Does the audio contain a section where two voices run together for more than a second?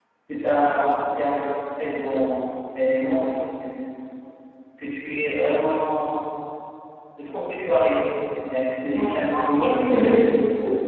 Yes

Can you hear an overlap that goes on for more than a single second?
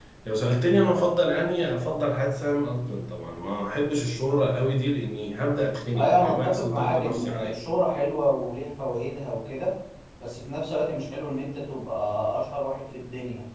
Yes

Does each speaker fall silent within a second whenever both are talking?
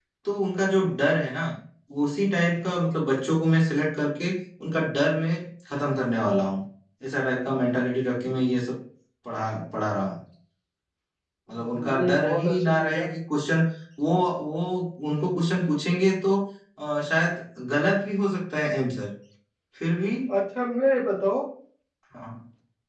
No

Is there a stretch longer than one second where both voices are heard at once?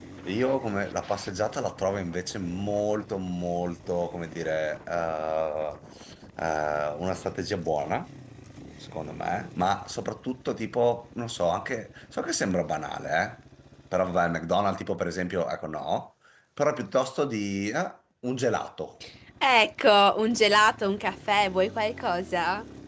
No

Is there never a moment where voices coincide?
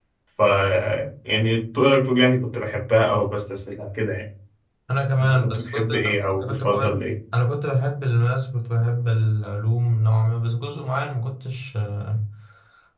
No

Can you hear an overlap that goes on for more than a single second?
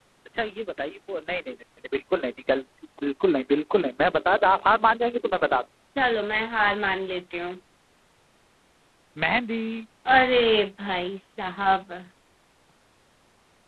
No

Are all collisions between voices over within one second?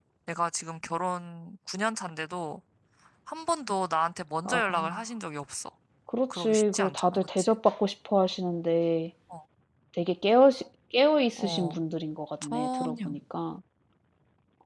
No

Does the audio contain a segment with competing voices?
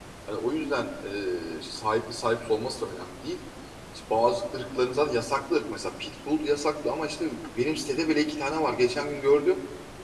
No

